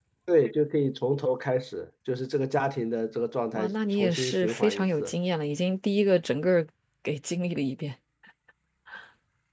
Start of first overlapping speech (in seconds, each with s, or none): 3.5 s